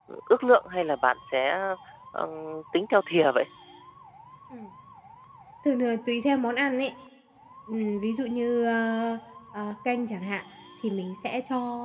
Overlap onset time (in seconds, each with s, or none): none